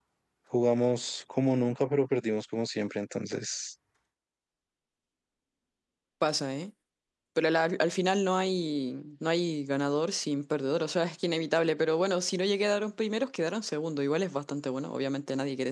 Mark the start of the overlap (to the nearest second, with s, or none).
none